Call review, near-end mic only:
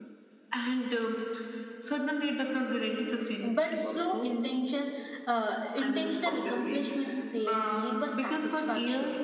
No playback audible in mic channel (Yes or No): No